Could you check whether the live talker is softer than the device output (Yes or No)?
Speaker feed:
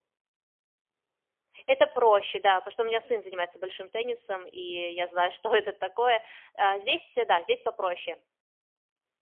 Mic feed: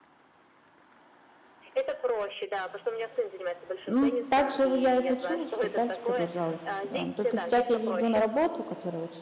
No